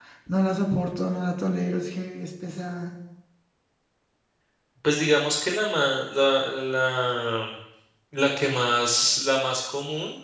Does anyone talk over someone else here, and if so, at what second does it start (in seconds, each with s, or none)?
none